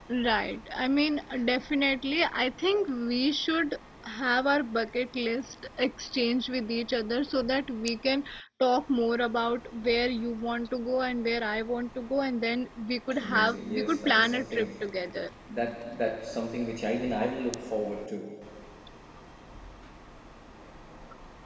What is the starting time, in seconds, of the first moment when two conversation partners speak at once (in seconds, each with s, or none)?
13.1 s